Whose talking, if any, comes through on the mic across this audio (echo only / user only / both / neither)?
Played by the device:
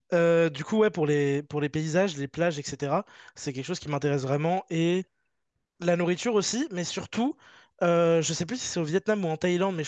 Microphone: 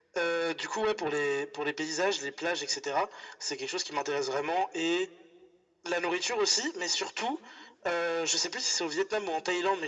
echo only